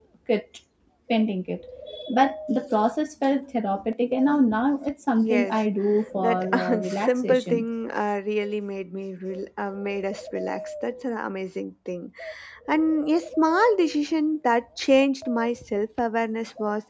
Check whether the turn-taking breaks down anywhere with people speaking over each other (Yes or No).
Yes